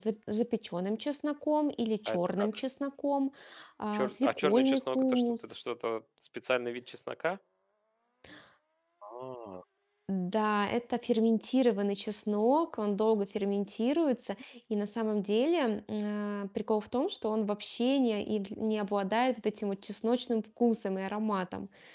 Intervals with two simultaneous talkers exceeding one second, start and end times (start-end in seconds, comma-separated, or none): 3.9-5.5